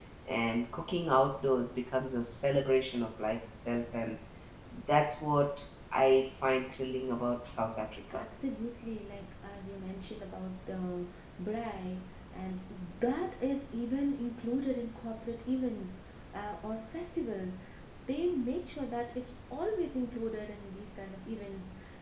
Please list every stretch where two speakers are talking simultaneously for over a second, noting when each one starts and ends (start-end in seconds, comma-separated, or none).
none